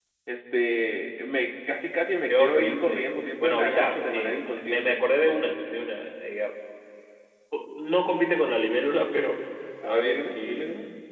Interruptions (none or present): present